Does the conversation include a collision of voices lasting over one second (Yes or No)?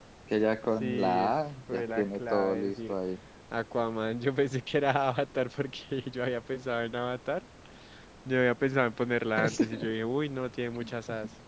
Yes